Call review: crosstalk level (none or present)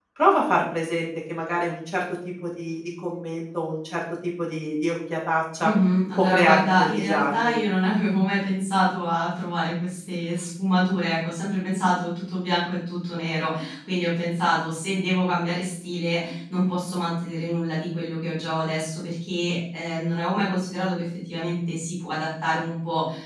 present